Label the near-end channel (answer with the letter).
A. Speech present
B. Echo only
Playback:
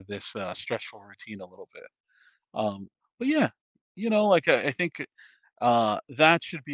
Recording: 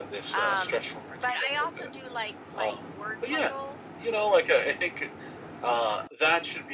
A